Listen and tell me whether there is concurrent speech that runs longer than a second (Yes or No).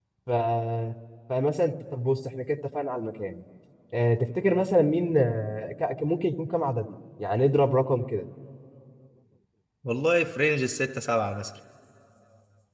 No